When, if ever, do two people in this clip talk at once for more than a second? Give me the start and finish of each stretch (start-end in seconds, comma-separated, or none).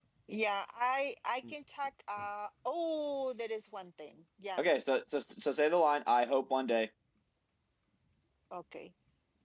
none